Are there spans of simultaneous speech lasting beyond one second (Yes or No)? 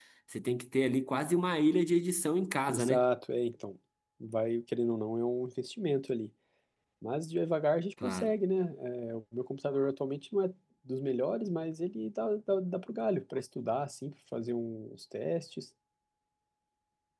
No